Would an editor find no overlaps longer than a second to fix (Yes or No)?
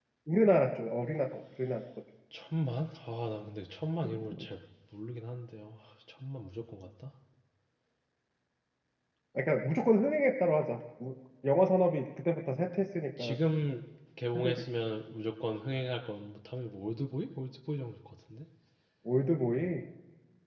Yes